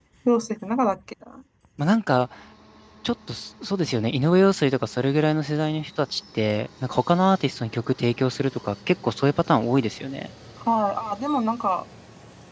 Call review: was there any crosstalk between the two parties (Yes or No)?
No